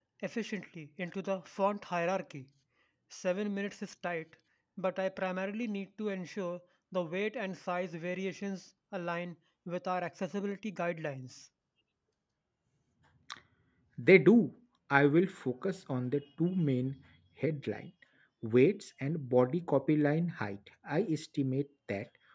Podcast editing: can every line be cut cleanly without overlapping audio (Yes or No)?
Yes